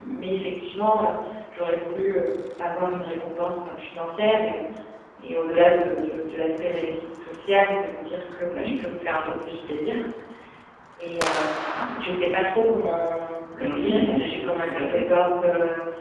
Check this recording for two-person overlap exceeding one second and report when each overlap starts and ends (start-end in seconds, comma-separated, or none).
13.6-15.0